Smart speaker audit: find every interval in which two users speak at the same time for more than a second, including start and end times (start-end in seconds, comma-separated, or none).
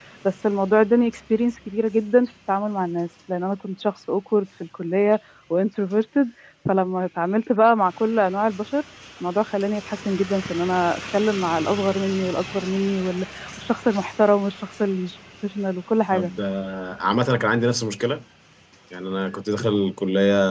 none